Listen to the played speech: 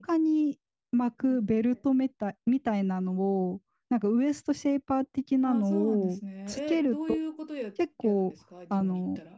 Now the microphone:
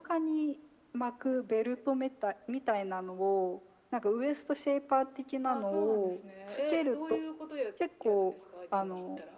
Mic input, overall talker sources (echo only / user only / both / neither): echo only